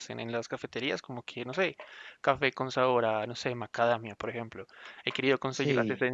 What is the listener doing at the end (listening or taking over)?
listening